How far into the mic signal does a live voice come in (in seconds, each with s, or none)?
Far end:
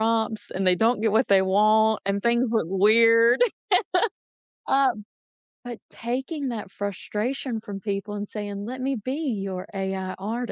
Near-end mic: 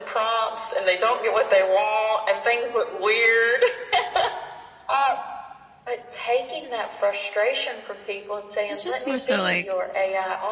8.7 s